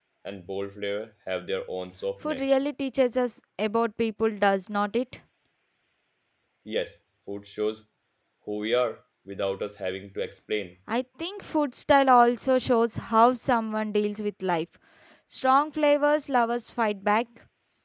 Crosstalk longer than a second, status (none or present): none